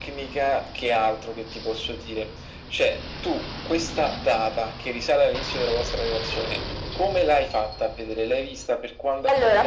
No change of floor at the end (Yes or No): No